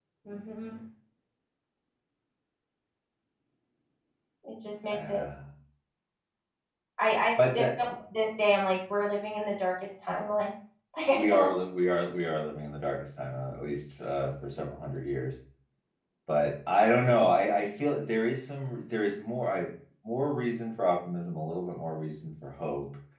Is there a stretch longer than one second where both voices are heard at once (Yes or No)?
No